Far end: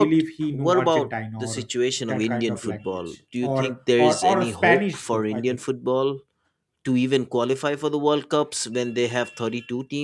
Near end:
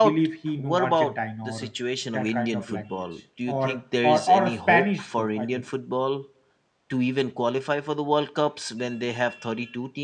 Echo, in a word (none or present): present